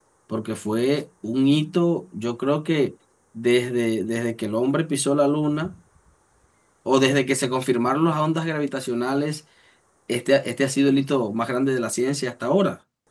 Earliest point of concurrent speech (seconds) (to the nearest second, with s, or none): none